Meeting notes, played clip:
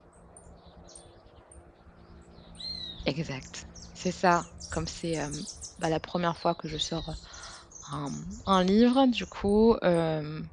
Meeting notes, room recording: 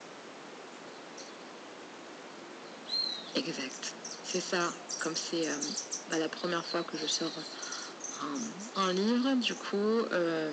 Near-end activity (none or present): none